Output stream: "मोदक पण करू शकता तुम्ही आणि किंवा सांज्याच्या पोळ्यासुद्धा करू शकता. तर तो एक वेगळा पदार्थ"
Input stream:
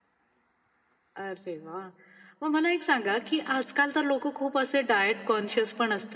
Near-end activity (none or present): present